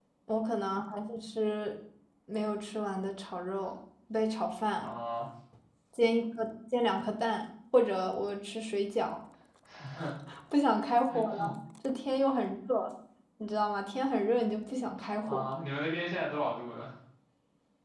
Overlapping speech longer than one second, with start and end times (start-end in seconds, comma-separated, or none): none